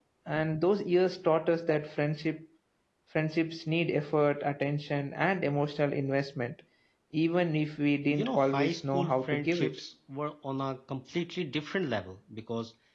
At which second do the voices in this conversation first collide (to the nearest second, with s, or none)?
8 s